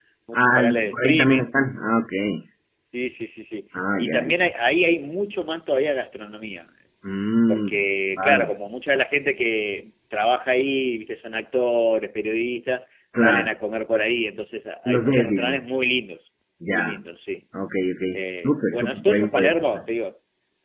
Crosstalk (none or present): present